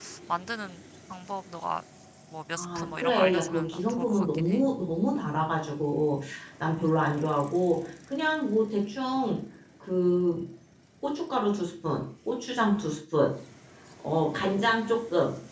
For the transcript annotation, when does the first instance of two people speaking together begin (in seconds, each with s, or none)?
2.6 s